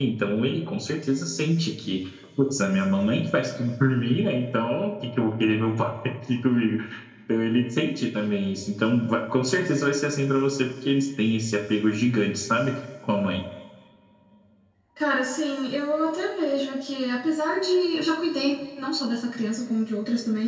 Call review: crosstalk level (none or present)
none